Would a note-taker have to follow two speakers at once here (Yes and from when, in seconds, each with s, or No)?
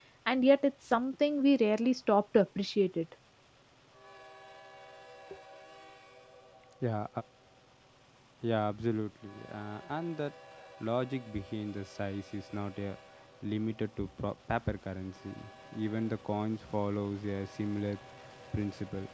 No